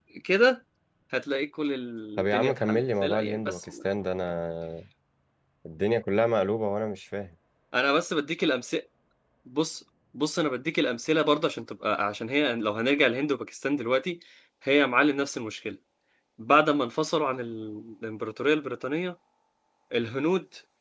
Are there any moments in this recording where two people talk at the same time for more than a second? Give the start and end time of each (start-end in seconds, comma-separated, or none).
2.2-3.7